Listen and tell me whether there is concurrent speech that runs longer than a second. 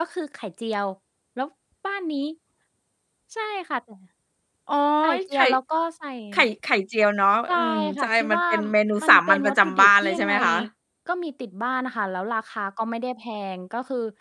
Yes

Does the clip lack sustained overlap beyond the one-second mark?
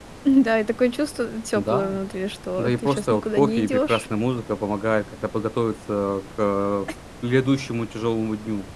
No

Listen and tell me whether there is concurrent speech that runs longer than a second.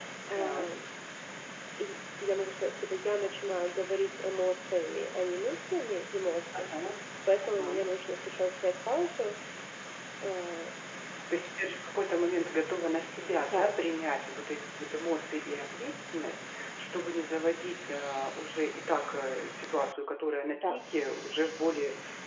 No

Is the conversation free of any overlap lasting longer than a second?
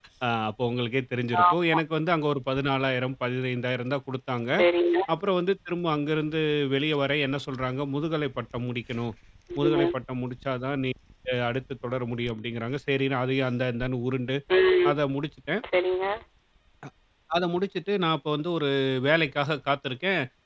Yes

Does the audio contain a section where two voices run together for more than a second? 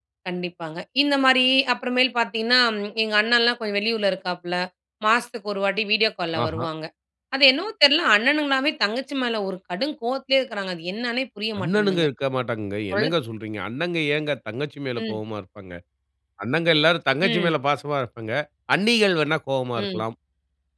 No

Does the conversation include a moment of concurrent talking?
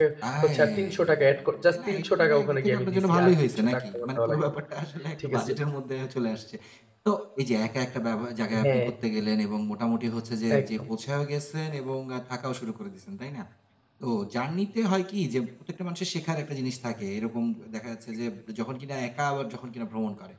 Yes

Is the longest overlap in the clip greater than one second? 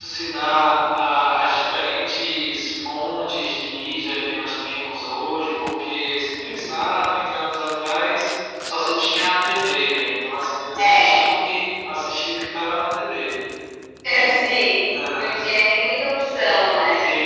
No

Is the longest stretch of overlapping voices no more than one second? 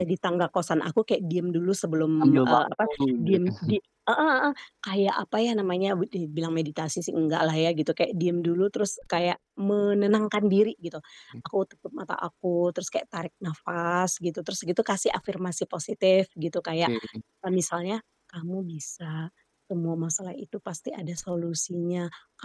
No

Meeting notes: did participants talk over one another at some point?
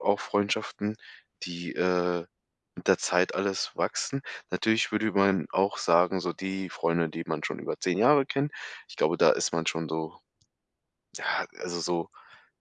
No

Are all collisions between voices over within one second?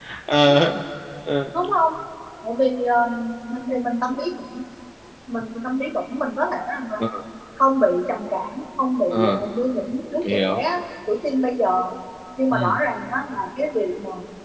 Yes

